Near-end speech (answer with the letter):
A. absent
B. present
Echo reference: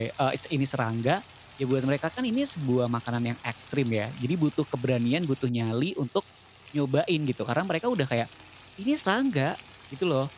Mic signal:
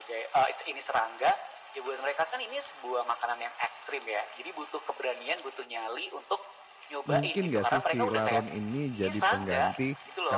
B